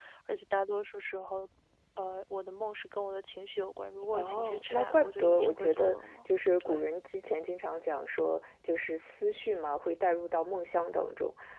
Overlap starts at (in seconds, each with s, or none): 4.1 s